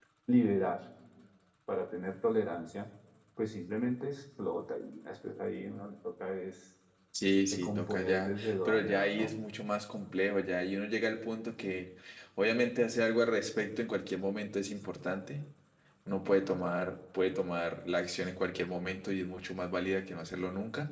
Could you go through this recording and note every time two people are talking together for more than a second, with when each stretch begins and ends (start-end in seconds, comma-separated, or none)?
7.5-9.3